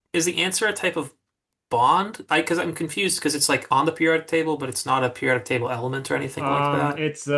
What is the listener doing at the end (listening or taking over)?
taking over